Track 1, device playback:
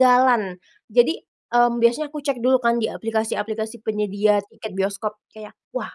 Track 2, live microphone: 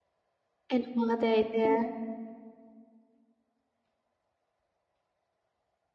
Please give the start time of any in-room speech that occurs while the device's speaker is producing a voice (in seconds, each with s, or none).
0.7 s